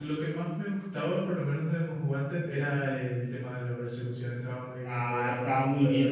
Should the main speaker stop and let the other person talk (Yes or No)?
Yes